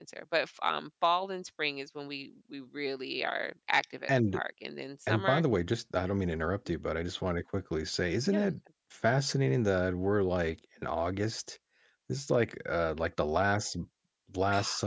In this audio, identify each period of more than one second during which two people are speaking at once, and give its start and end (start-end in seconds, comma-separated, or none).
none